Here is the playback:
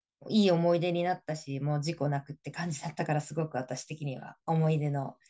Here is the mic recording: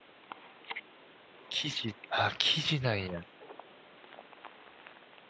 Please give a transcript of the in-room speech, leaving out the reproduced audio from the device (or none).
生地、あ、生地なんや。